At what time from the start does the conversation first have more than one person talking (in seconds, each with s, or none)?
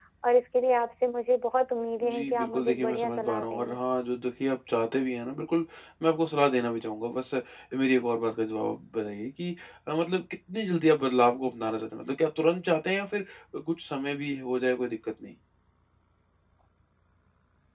2.0 s